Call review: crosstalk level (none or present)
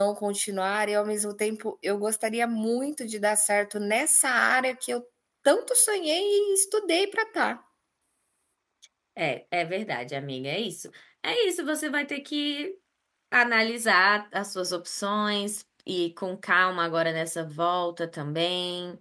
none